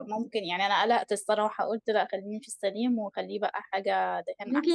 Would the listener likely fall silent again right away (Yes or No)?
No